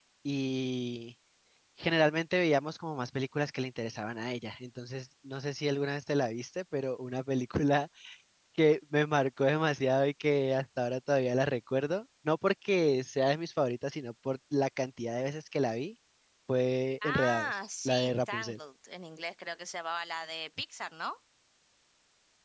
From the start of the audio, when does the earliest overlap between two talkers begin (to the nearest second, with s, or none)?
17 s